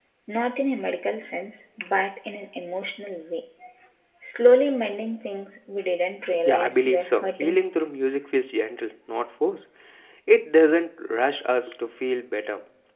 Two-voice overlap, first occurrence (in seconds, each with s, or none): 6.4 s